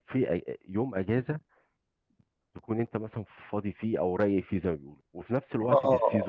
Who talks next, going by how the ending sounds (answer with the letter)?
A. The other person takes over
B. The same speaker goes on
B